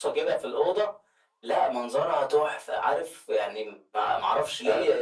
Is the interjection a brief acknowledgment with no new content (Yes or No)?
No